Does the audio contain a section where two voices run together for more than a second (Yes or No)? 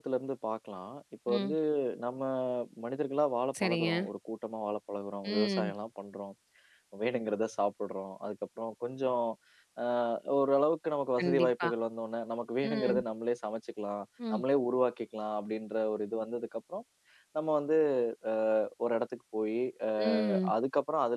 No